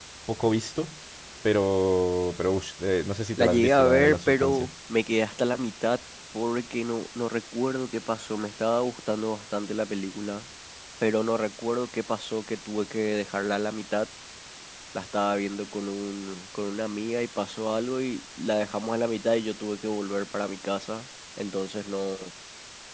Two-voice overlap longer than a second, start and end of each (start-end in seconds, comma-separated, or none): 3.3-4.7